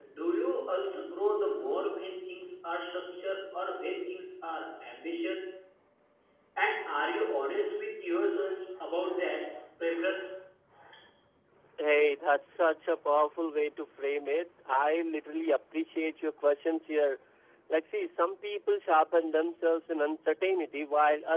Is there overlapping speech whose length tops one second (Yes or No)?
No